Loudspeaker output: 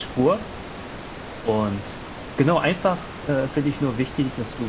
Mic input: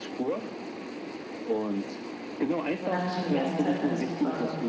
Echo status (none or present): present